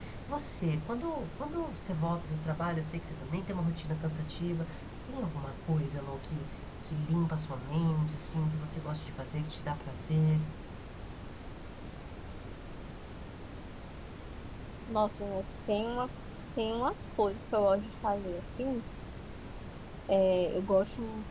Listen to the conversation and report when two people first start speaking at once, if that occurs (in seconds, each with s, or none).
none